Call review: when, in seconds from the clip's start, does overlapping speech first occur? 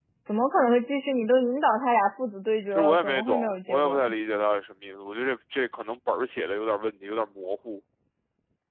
2.7 s

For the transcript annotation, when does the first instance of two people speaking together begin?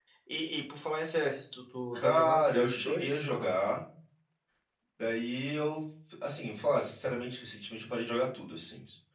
1.9 s

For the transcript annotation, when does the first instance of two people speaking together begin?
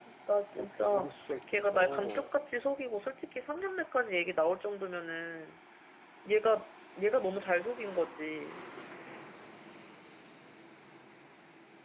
0.6 s

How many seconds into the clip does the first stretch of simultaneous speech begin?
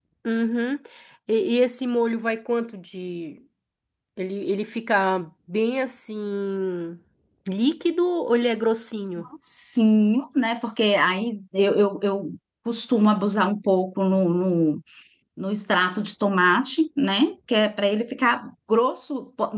none

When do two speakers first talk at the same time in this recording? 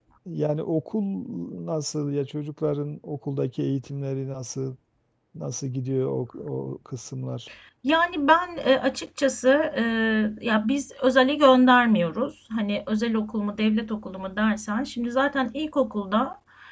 none

